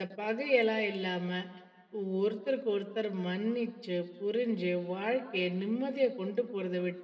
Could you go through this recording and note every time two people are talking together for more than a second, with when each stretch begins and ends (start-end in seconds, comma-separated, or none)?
none